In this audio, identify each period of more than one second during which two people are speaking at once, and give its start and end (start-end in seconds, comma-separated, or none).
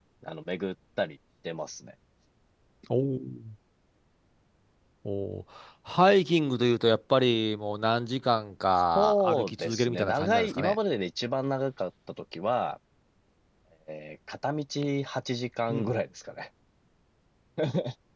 8.9-10.8